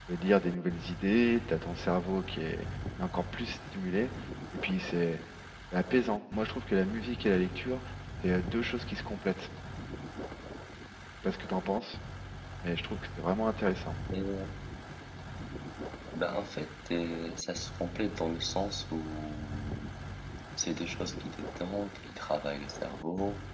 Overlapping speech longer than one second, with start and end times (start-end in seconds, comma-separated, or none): none